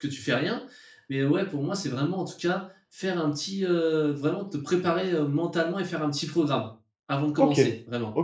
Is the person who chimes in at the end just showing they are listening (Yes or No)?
No